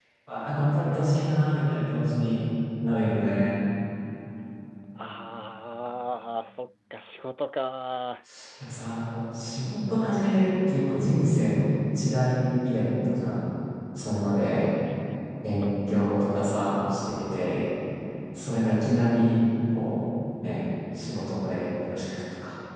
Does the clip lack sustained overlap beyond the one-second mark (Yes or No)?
Yes